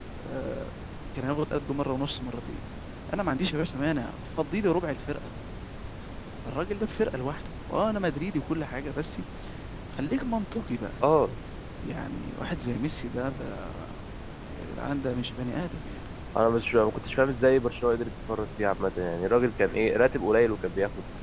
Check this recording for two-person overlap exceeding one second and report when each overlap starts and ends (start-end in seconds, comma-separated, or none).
none